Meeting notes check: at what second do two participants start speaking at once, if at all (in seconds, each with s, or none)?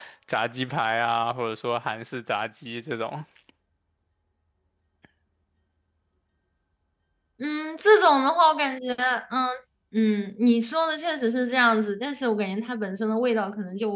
none